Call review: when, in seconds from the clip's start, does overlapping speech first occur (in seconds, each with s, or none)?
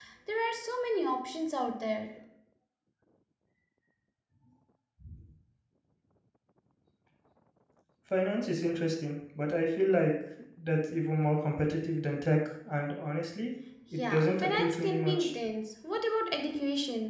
14.0 s